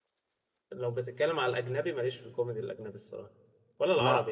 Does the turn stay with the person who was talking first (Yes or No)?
Yes